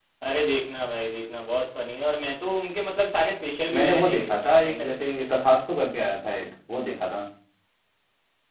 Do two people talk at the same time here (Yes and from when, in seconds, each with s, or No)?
Yes, from 3.7 s